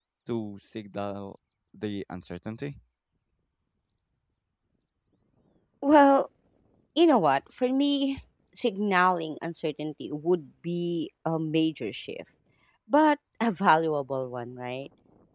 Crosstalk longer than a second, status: none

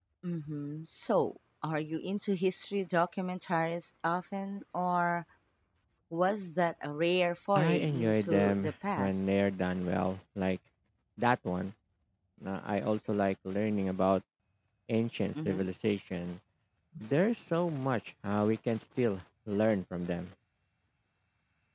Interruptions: present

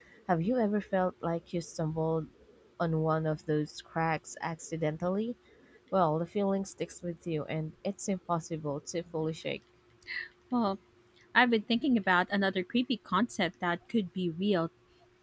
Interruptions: none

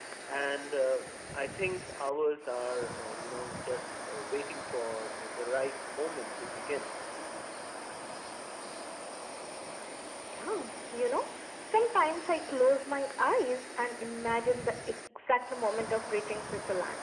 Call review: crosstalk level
none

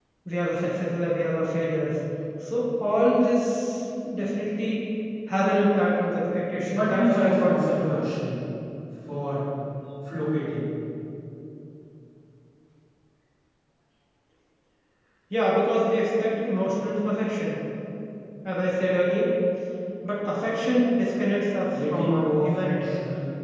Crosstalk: present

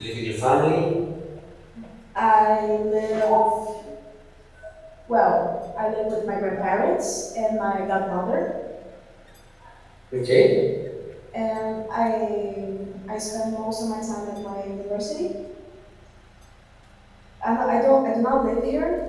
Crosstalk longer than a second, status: none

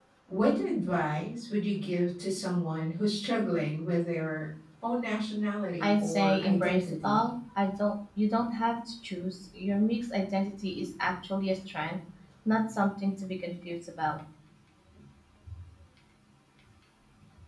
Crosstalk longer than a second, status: present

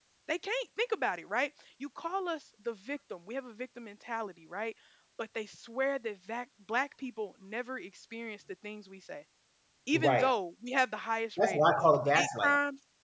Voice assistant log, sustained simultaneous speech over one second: present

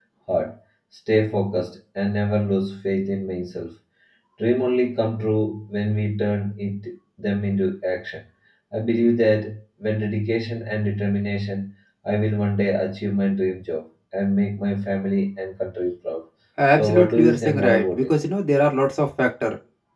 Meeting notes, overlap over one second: present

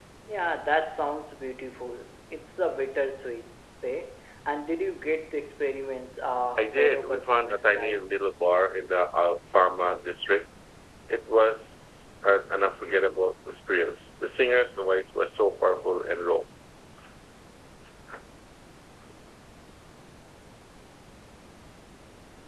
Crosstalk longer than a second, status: present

